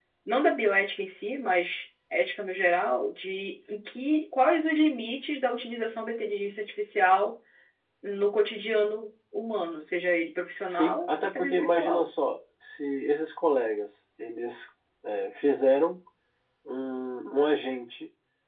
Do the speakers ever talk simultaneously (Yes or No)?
Yes